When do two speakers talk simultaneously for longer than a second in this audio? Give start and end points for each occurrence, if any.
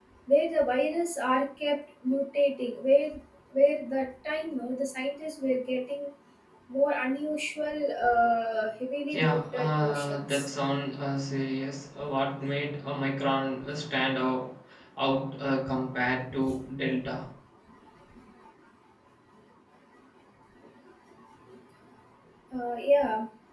9.1-10.4

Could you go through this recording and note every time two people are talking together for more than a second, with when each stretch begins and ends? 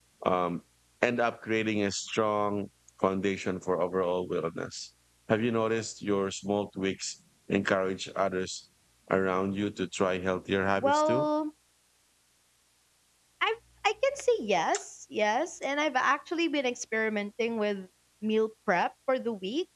none

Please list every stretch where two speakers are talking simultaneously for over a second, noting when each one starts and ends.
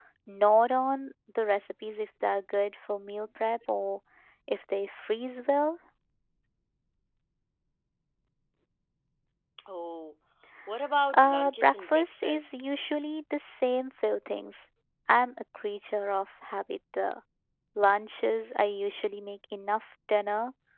11.2-12.7

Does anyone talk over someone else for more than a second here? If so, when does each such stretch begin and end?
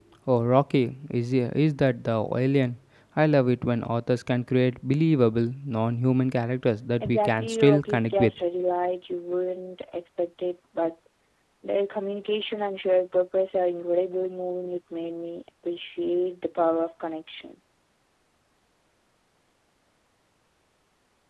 7.0-8.3

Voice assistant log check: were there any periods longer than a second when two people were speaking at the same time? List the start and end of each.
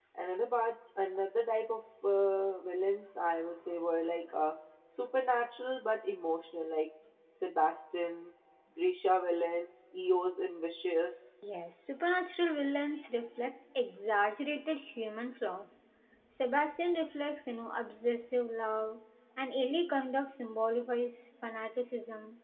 none

